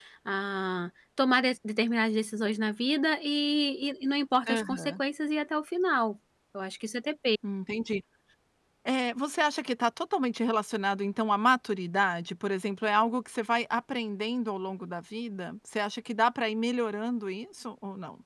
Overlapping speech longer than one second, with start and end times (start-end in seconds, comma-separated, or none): none